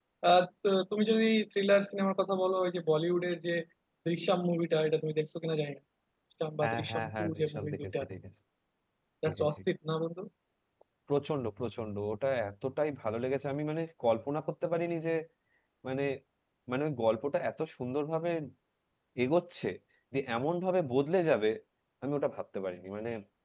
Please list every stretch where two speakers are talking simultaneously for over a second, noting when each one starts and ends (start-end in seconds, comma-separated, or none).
6.6-8.0